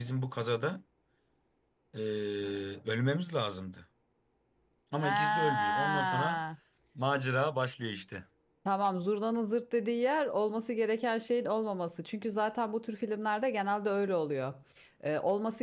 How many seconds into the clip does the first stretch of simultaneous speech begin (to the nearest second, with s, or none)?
5 s